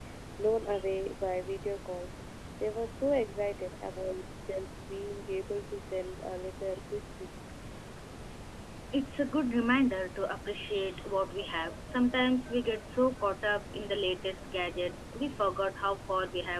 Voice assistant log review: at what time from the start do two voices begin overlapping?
none

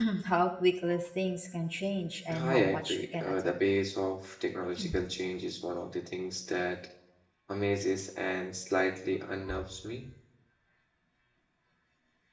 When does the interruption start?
2.3 s

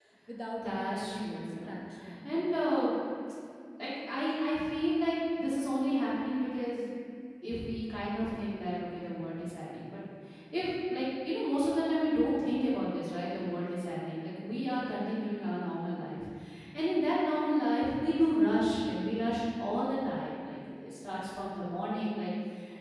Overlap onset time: 0.6 s

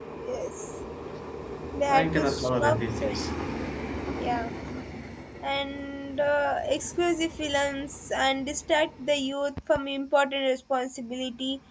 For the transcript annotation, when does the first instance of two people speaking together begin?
1.9 s

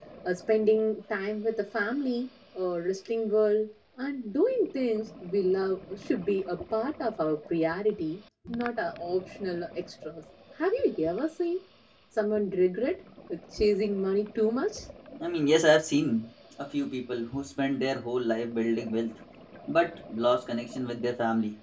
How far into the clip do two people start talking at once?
none

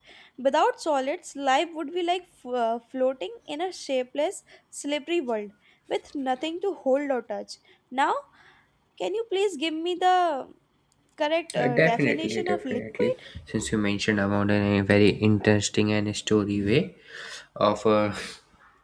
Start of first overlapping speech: 11.6 s

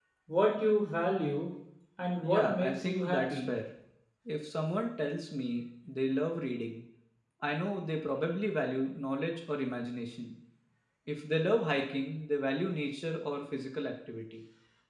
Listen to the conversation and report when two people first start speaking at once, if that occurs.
2.2 s

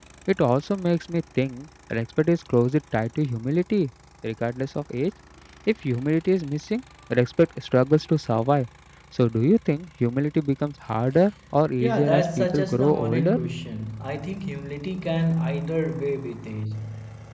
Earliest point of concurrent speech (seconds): 11.8 s

